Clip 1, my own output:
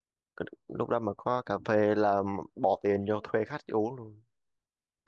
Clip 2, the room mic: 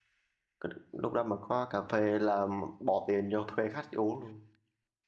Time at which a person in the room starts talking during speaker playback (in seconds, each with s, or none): none